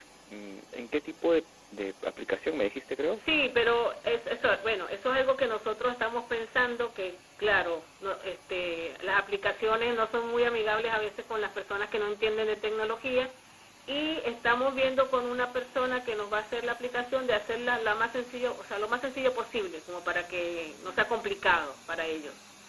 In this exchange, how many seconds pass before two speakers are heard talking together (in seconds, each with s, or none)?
none